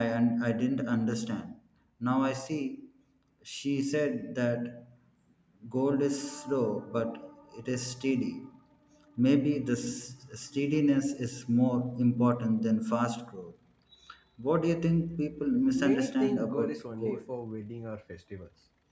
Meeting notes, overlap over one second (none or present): present